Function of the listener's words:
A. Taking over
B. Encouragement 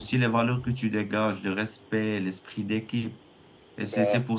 B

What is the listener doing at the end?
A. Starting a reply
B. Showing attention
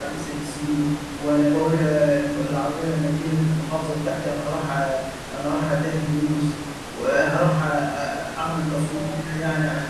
B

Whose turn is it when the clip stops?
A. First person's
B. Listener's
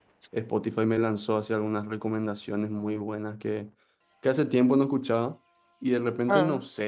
A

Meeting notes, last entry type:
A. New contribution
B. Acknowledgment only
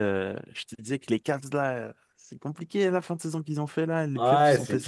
A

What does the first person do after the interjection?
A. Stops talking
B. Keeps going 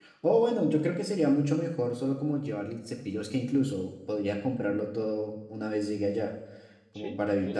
A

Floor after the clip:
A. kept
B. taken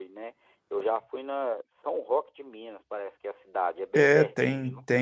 B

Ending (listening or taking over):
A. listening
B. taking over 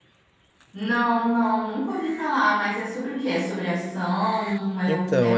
B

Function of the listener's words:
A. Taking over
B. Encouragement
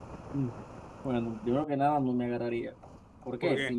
B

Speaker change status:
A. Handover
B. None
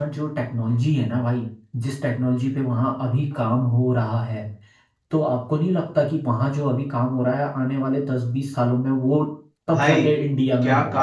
A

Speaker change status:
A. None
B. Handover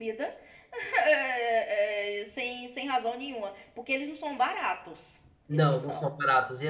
B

